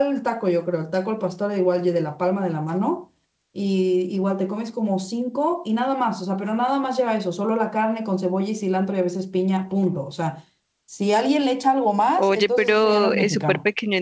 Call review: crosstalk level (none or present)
present